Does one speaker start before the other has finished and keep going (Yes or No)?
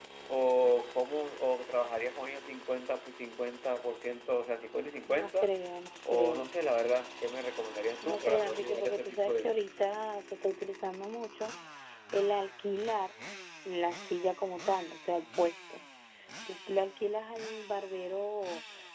Yes